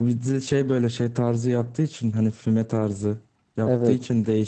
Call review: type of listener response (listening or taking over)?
listening